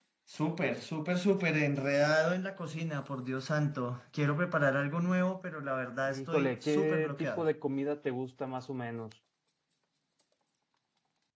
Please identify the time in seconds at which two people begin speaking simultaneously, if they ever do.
6.1 s

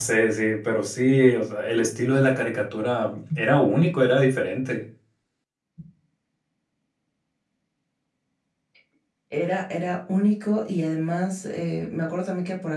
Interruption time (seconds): none

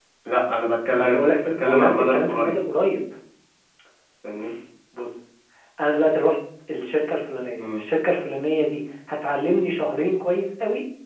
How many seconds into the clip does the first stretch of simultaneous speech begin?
0.9 s

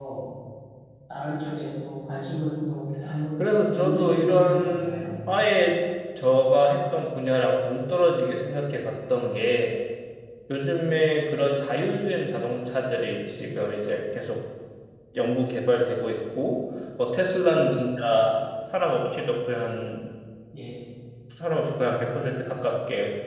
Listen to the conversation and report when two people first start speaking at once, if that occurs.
3.4 s

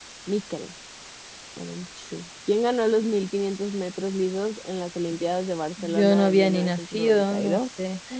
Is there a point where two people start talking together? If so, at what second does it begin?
5.8 s

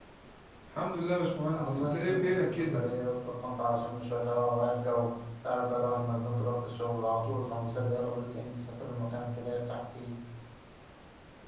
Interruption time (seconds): 1.5 s

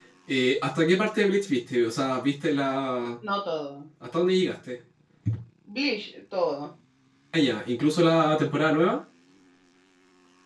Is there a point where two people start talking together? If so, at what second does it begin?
none

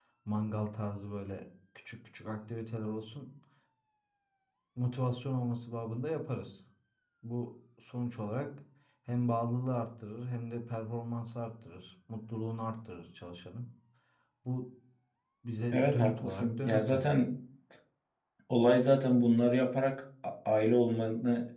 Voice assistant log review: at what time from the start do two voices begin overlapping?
15.7 s

